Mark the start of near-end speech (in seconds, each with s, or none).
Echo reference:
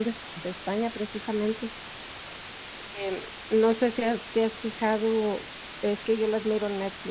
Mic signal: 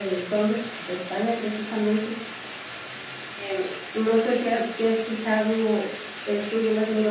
none